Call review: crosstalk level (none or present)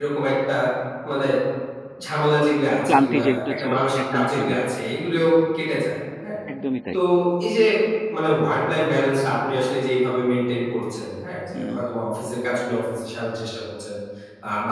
present